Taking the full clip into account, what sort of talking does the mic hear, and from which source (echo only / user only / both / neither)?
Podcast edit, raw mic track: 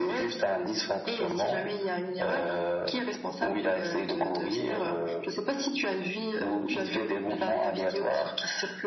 echo only